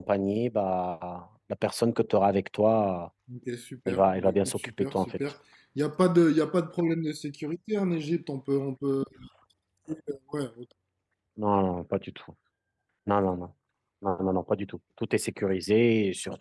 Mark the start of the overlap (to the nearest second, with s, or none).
4 s